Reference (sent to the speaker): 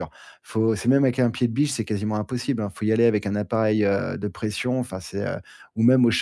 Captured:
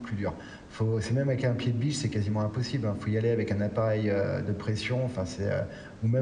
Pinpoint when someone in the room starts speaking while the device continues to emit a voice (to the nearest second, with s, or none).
none